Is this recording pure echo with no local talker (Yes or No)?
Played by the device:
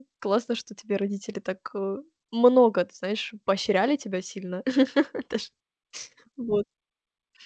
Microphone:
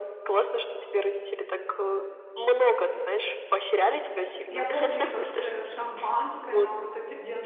No